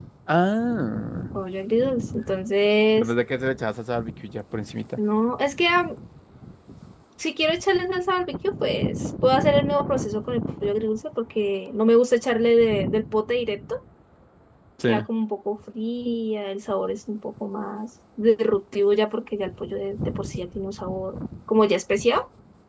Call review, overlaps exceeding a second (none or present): none